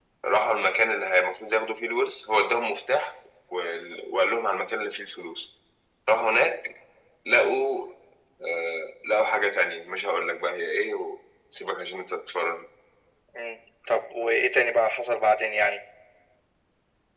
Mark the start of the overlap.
none

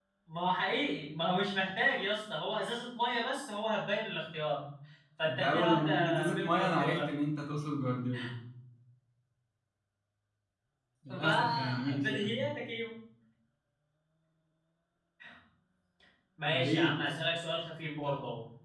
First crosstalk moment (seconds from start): 5 s

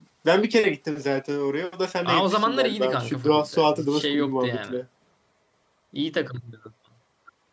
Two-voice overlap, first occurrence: 2 s

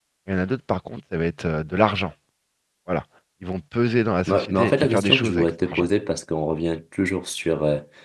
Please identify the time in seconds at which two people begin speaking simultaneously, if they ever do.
4 s

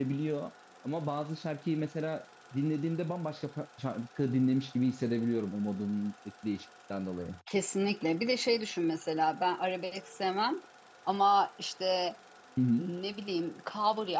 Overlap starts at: none

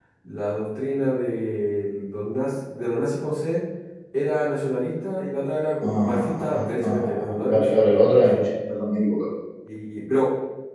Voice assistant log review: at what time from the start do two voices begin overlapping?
6 s

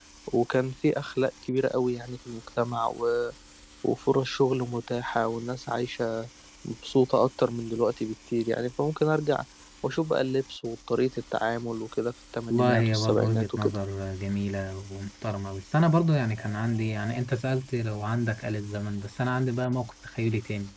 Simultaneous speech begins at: 13 s

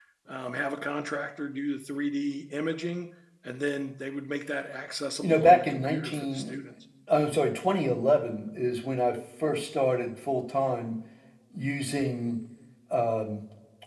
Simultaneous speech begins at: 5 s

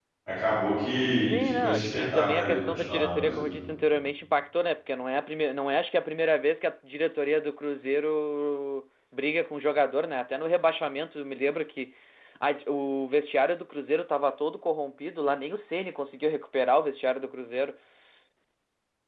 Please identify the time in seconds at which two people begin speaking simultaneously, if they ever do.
1 s

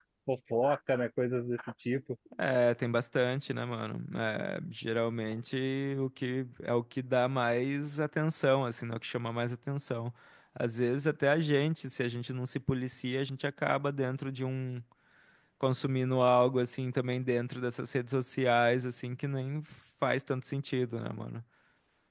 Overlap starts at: none

